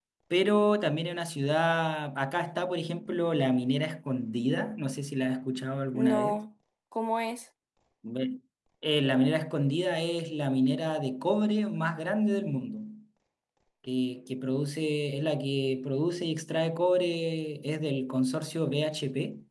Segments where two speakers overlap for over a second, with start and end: none

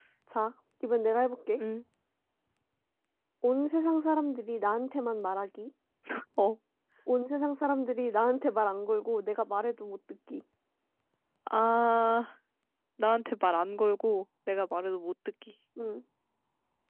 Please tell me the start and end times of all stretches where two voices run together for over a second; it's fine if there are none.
none

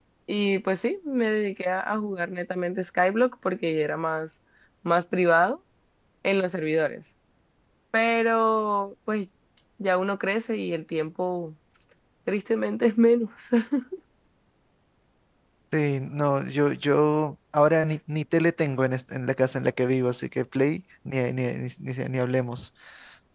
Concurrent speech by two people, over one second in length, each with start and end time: none

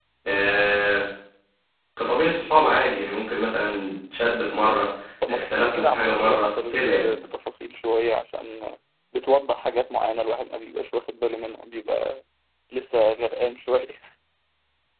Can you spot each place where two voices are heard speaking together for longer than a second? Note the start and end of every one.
5.3-7.1

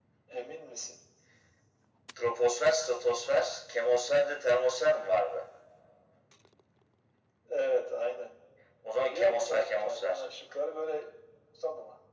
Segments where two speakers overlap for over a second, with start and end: 9.0-10.2

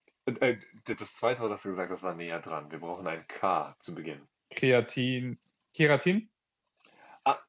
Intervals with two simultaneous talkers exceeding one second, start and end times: none

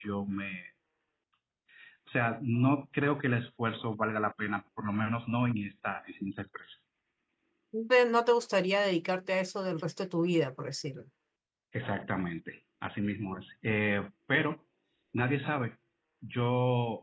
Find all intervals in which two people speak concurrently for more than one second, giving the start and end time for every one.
none

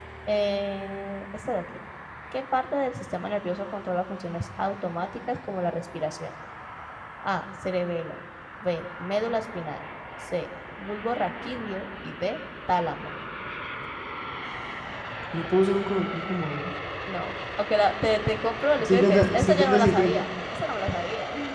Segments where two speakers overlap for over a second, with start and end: 18.8-20.3

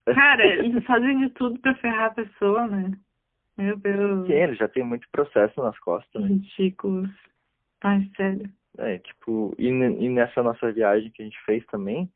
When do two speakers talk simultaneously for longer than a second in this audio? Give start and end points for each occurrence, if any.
none

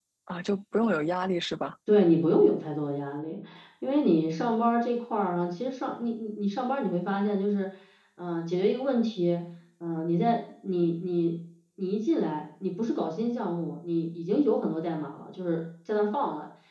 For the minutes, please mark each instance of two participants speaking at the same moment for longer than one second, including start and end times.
none

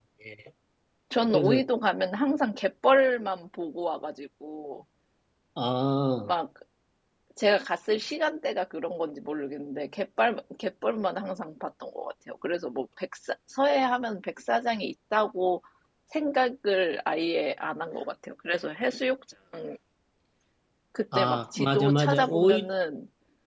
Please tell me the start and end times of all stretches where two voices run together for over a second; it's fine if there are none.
21.1-22.7

